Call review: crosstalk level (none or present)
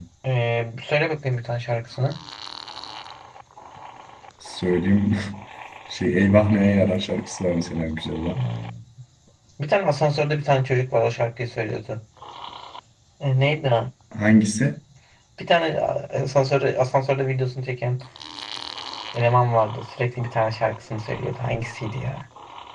none